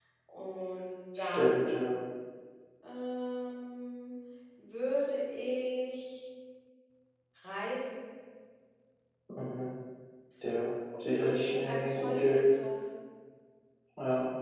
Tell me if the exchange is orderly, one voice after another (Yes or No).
No